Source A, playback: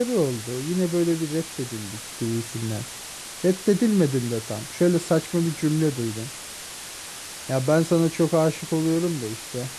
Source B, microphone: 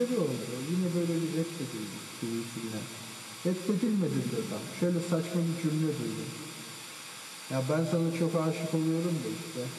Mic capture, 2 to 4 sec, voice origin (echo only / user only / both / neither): echo only